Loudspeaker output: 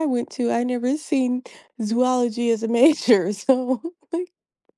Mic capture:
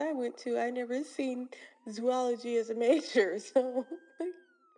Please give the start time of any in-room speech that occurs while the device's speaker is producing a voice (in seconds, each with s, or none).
none